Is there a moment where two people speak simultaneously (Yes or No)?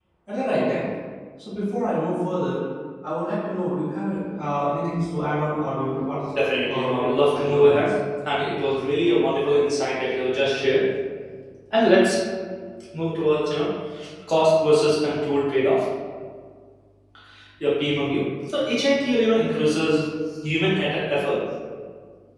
Yes